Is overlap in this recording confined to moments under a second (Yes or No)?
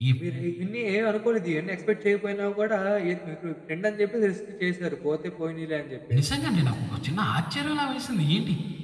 Yes